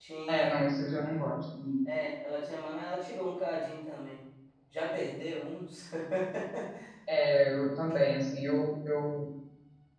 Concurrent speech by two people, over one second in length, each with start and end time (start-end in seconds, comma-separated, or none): none